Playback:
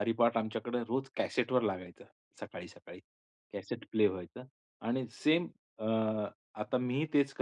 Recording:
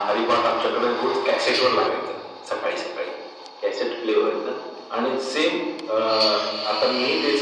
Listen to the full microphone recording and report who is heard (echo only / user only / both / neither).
echo only